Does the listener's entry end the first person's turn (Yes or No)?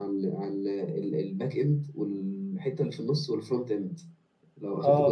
No